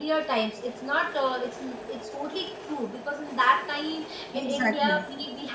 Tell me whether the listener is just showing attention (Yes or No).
Yes